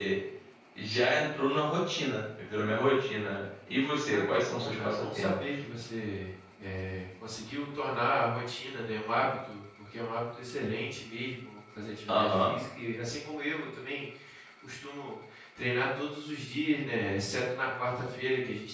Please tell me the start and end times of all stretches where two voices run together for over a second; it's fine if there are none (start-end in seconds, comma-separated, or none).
4.1-5.6